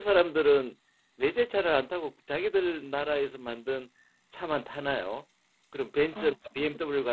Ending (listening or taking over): listening